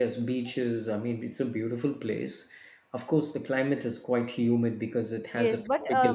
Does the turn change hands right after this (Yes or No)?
Yes